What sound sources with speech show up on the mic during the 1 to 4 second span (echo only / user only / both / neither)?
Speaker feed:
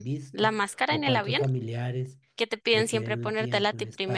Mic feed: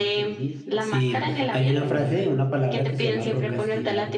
both